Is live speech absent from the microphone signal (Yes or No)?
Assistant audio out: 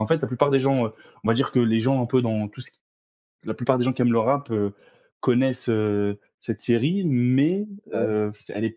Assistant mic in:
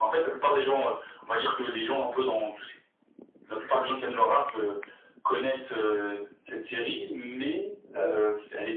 Yes